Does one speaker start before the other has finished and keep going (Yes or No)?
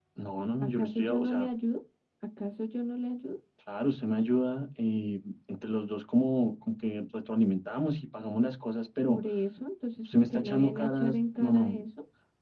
Yes